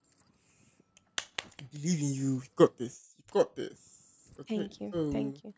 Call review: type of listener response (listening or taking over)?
taking over